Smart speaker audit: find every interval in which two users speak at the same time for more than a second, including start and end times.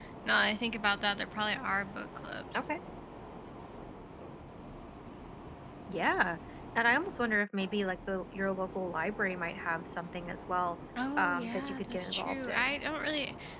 11.2-12.8

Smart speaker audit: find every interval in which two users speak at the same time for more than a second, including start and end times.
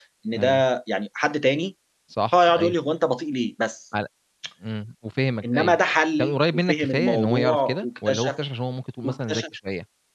6.2-8.3

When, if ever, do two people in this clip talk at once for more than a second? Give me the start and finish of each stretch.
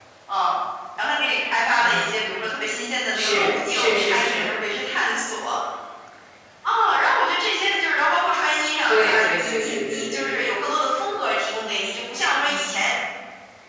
3.1-4.5, 8.9-10.5

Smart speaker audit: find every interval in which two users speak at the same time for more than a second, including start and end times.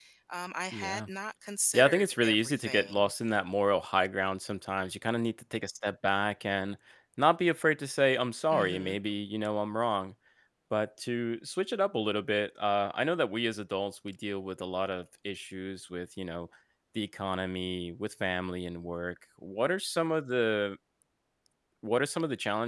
1.7-3.1

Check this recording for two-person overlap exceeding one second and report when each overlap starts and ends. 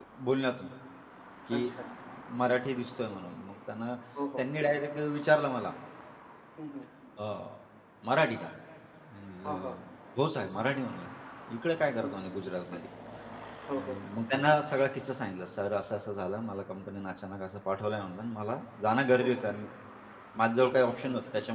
none

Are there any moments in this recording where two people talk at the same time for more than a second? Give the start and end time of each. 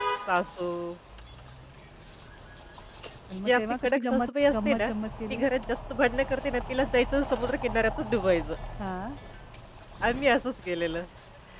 3.4-4.9

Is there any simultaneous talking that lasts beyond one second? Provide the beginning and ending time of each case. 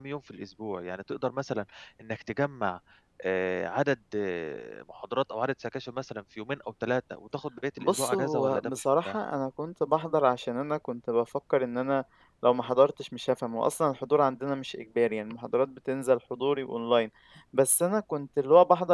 7.8-9.2

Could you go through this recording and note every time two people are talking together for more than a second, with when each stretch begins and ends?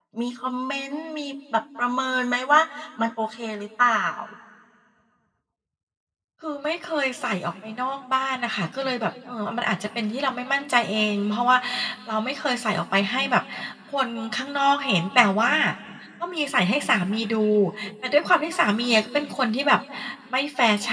none

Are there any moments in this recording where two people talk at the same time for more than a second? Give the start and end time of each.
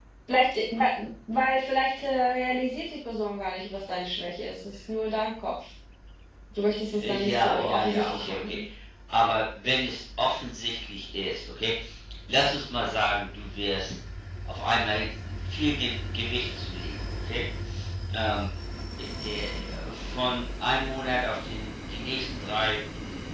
6.9-8.6

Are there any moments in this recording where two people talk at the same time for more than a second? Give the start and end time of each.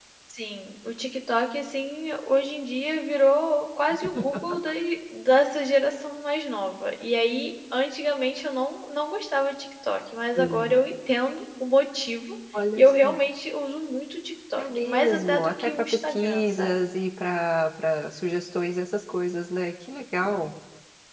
14.6-16.7

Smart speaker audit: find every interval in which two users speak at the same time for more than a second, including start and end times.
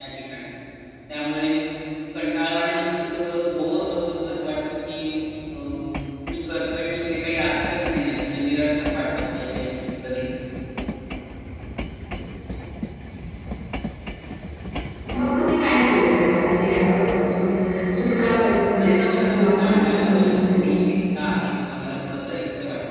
18.8-20.8

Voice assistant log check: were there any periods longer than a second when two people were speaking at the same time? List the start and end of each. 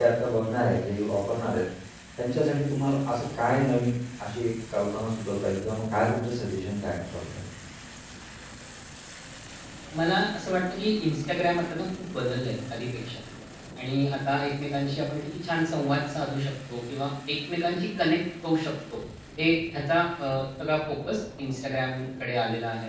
none

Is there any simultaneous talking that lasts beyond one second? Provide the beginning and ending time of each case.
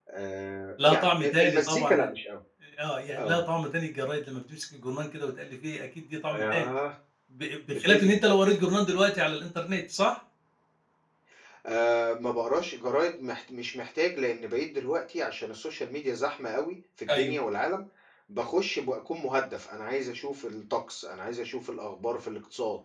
0.8-2.1

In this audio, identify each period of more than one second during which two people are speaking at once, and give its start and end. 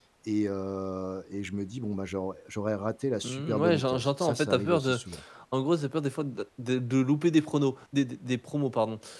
3.2-5.0

